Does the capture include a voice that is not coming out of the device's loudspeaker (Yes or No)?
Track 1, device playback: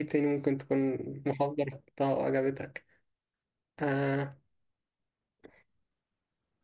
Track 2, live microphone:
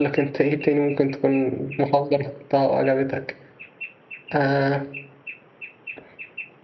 No